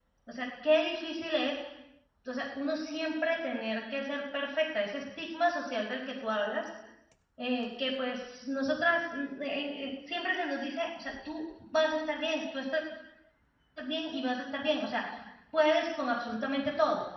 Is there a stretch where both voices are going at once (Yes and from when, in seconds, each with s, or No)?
No